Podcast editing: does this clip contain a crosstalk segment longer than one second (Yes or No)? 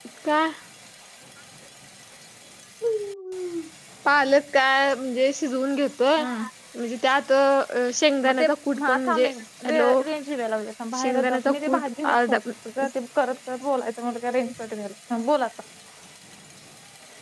Yes